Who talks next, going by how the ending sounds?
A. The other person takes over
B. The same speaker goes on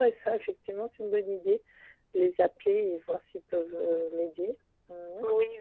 A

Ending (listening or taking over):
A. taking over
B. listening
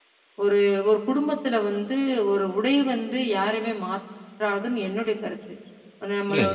B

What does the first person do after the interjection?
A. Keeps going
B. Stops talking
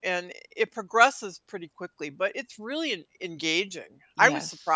B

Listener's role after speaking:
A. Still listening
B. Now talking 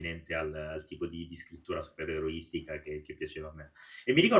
B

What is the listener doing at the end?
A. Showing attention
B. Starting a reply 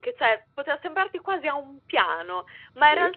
A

